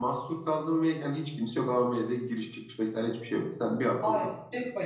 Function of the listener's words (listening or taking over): taking over